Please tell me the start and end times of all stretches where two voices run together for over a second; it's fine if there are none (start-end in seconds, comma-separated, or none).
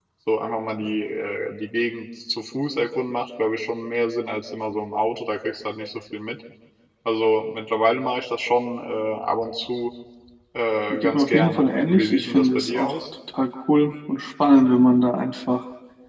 10.9-13.0